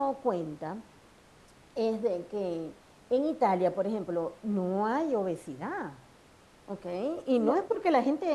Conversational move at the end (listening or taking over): listening